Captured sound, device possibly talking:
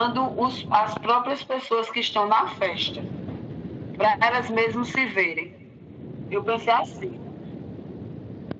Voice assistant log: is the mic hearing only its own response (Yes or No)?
Yes